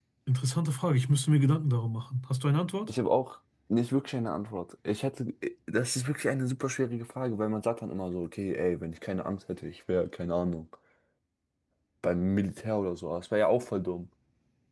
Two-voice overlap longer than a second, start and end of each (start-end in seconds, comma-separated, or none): none